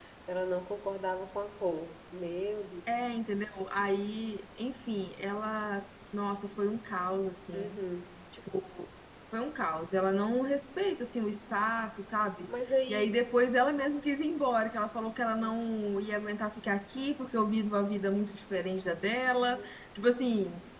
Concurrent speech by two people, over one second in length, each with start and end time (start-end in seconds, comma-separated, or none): none